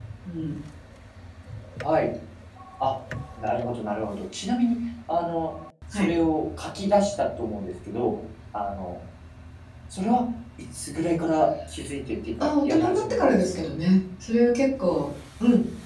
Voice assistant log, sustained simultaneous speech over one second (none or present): present